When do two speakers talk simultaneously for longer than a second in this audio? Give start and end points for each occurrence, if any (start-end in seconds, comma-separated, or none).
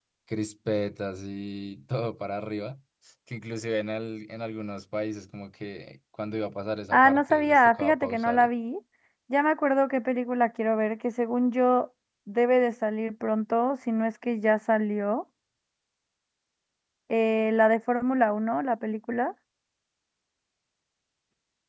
6.9-8.5